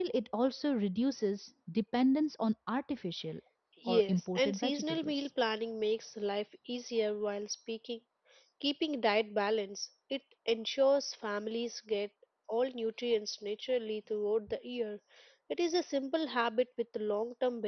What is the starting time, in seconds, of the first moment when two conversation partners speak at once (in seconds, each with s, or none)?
3.9 s